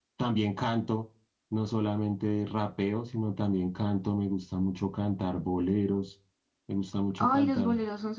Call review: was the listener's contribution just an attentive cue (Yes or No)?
No